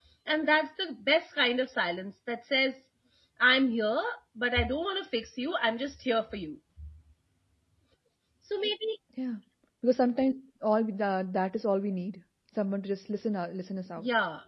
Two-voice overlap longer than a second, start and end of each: none

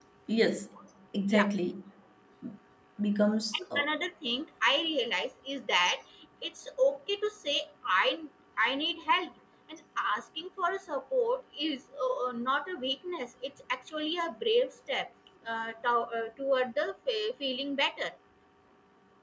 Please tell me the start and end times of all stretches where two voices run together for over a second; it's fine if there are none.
none

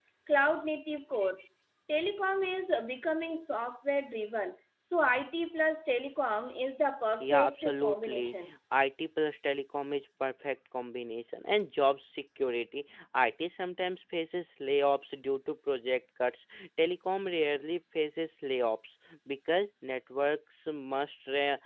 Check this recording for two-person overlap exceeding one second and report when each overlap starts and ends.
7.2-8.5

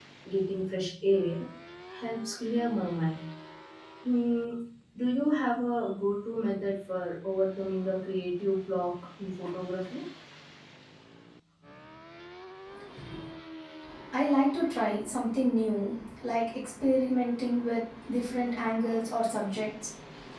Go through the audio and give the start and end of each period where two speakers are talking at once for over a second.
none

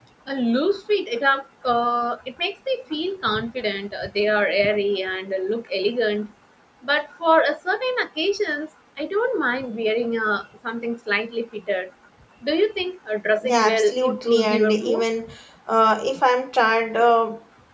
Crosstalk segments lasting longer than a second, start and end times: 13.4-15.1

